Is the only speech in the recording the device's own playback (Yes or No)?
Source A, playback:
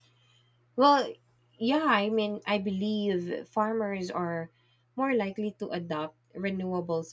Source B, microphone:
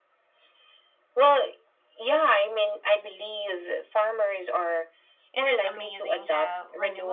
No